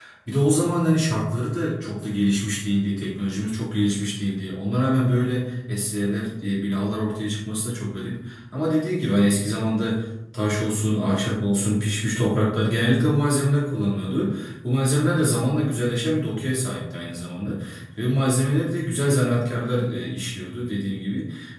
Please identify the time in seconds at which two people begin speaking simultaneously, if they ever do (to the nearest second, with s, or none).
none